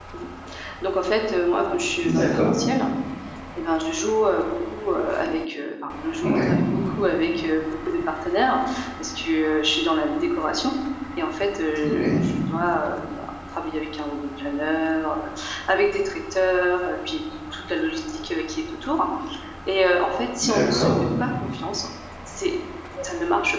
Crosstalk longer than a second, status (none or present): none